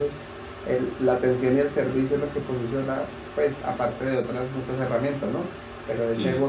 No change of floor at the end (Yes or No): Yes